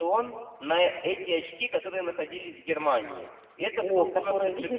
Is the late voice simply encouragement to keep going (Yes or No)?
No